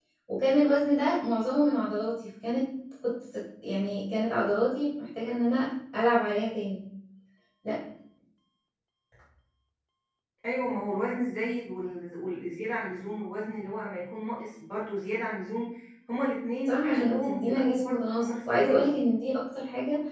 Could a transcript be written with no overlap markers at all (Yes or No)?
No